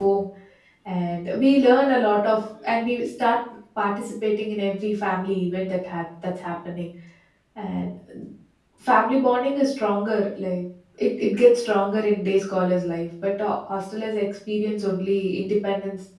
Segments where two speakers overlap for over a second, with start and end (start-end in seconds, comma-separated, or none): none